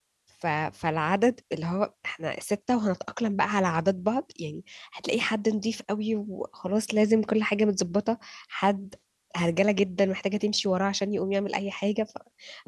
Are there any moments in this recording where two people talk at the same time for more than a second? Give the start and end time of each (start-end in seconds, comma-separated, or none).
none